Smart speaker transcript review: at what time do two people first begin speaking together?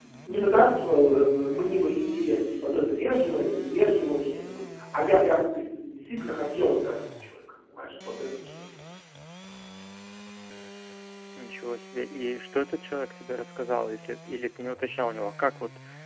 none

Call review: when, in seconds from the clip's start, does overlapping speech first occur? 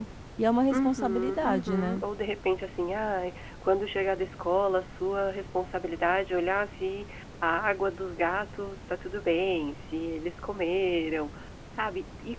0.7 s

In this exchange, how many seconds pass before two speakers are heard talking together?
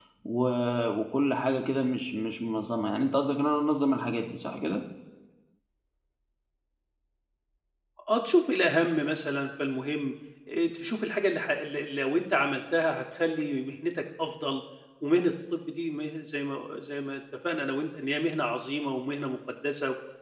none

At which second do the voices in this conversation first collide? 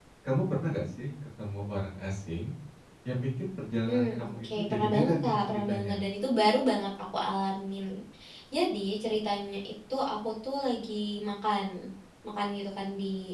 3.9 s

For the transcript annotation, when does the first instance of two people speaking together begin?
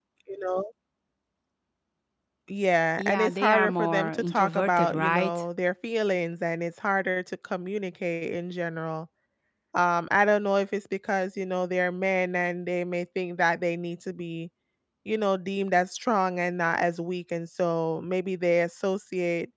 3.0 s

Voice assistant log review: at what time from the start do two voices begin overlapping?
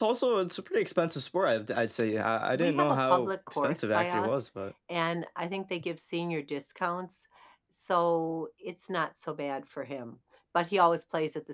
2.5 s

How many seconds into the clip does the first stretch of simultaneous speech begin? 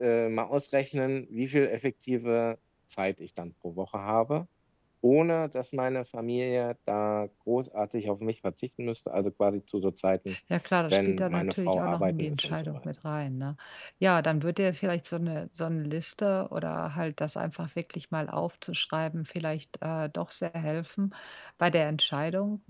10.9 s

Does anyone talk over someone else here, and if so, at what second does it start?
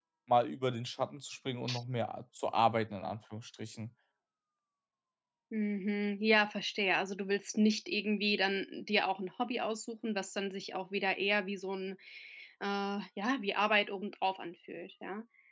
none

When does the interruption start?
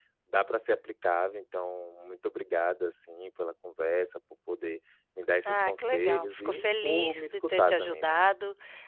5.4 s

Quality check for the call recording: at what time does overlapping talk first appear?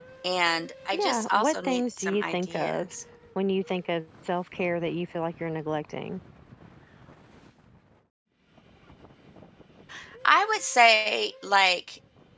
0.9 s

